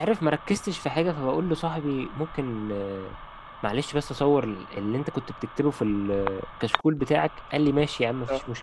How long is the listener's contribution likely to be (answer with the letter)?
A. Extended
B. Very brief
B